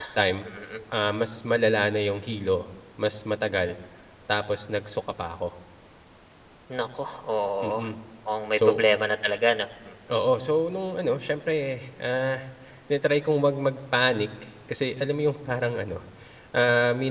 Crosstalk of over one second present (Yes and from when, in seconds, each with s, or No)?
No